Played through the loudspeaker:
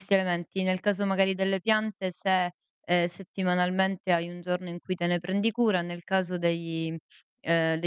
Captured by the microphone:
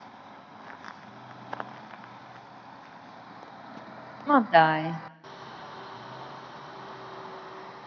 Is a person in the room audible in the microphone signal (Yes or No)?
Yes